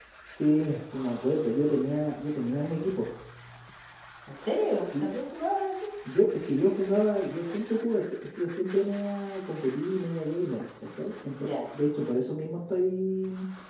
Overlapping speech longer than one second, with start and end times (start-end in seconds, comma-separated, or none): none